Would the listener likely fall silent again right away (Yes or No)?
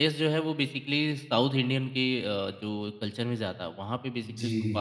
No